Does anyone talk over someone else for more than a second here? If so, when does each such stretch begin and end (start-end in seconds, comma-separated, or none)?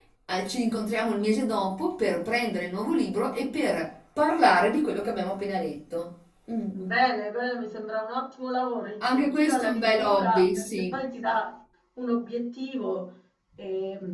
9.0-11.0